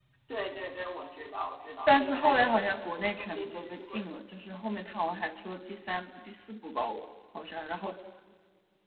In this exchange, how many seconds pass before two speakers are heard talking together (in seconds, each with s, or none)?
1.9 s